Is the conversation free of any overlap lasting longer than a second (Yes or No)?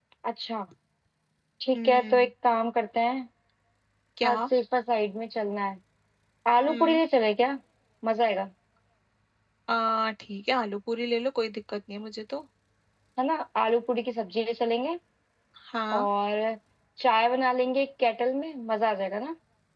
Yes